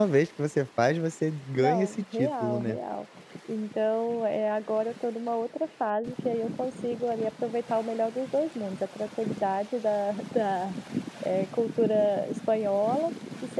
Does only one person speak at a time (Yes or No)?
No